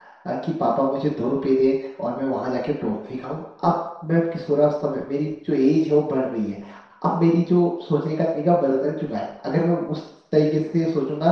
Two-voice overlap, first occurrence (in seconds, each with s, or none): none